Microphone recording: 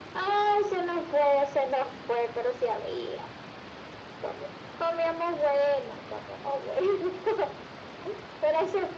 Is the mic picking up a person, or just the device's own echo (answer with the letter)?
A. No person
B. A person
A